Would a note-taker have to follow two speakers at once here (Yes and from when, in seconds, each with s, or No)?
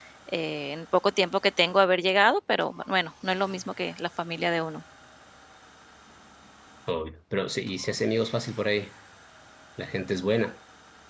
No